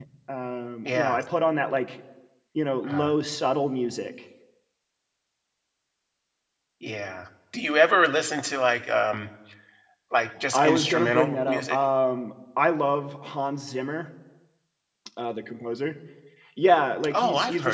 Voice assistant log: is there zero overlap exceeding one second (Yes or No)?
No